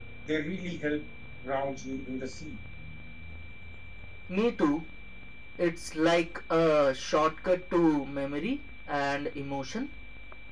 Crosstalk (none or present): none